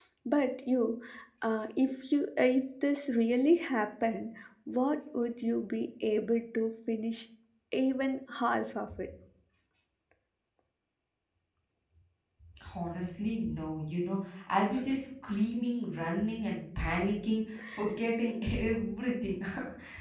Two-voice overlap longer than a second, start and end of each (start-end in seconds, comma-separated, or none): none